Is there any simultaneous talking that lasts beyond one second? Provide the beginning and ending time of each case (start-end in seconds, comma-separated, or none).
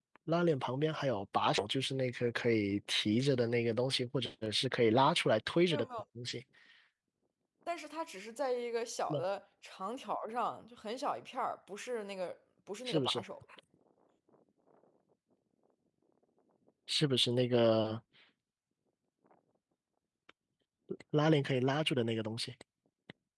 none